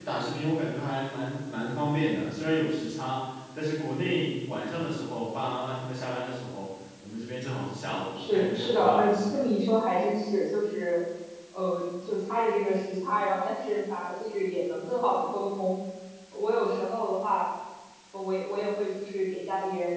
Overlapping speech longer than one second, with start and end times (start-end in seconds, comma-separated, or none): 8.2-9.4